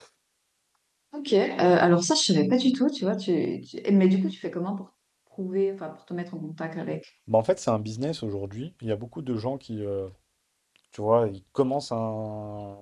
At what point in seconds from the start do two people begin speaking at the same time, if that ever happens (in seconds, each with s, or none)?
none